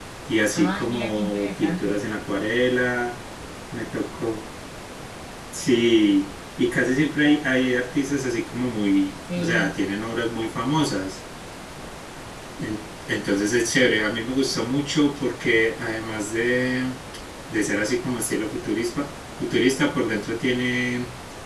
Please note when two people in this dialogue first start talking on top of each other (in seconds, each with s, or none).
0.5 s